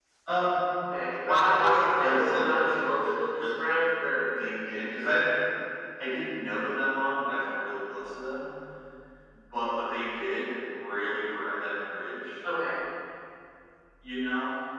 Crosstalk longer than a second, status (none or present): present